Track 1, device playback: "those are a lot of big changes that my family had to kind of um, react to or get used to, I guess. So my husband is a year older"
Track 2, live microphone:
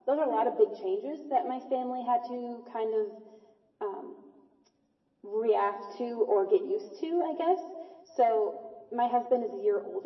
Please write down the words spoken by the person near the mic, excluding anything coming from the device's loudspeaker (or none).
none